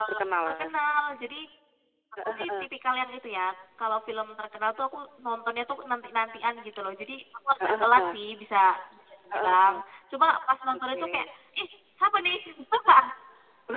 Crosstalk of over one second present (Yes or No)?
No